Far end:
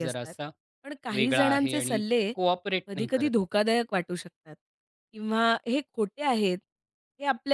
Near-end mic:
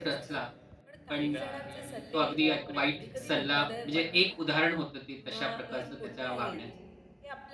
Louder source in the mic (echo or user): user